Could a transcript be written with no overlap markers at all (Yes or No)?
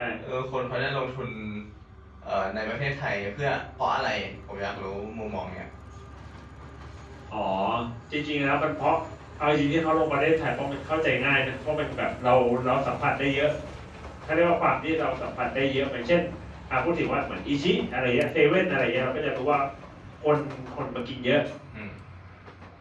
Yes